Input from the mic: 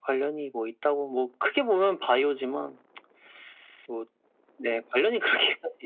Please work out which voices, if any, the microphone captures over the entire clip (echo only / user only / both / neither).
echo only